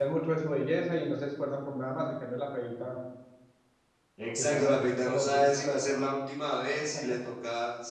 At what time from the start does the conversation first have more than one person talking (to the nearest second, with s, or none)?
4 s